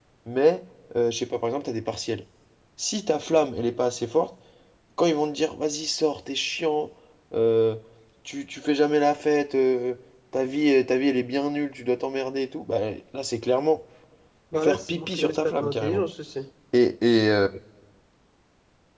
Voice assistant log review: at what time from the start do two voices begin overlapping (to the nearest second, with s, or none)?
15 s